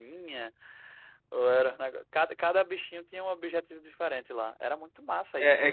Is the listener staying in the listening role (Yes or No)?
No